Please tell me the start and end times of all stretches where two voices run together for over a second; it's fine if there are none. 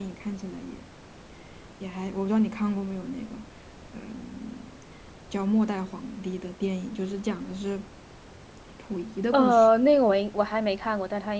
none

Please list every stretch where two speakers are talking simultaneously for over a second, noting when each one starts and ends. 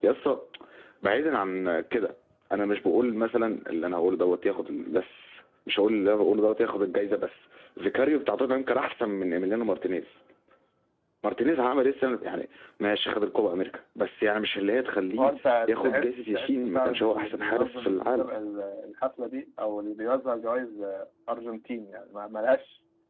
15.7-18.2

